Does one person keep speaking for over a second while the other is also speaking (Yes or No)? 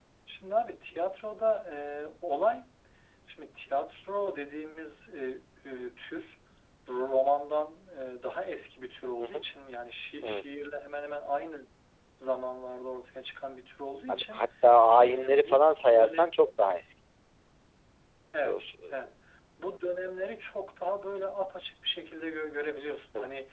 Yes